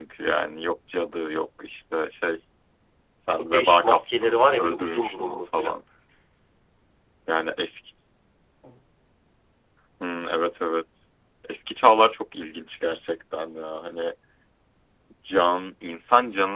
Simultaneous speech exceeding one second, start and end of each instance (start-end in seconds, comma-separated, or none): 3.4-5.7